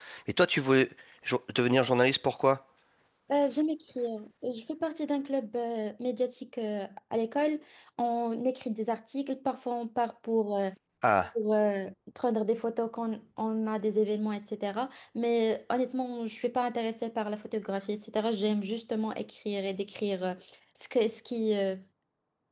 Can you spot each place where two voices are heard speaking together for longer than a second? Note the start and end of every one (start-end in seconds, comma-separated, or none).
none